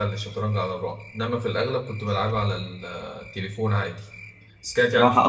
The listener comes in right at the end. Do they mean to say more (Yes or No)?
Yes